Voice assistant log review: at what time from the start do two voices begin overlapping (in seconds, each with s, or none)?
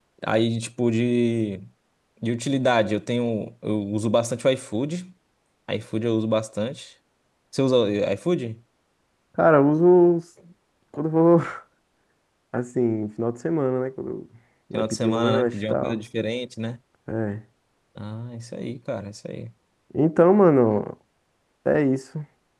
14.7 s